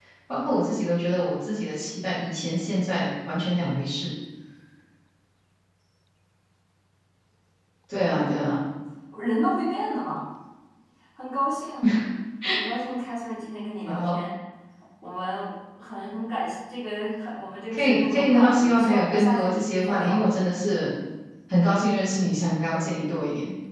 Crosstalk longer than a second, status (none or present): present